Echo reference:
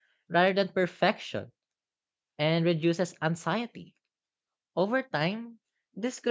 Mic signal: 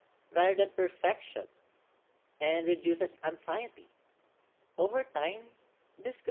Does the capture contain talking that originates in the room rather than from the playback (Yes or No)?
No